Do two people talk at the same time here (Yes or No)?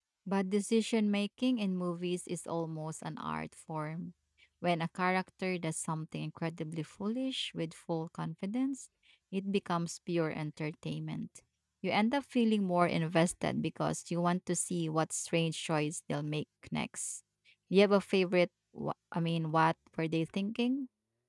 No